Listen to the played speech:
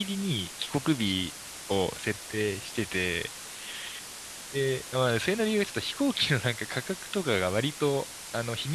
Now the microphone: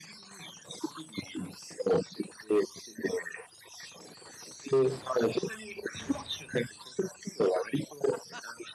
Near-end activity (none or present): none